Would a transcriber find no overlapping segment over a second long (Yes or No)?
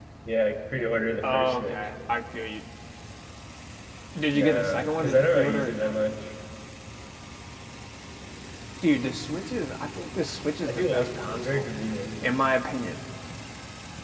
No